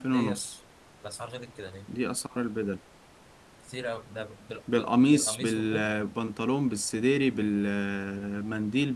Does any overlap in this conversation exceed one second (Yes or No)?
Yes